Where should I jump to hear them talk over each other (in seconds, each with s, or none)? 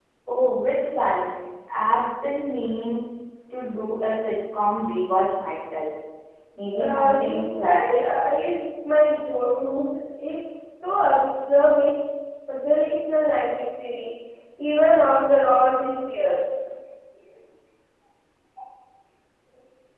6.8 s